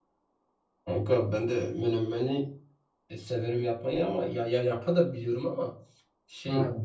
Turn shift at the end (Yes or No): No